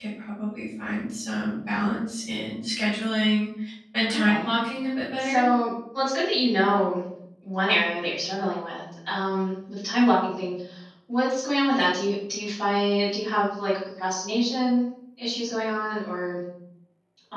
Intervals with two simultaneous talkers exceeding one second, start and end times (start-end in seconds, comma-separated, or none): none